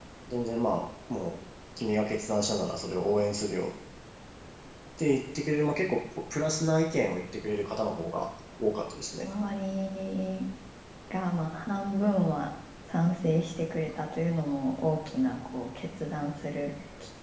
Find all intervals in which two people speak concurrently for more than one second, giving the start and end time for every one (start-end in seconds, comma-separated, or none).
none